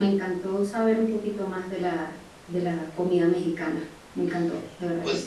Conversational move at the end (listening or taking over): taking over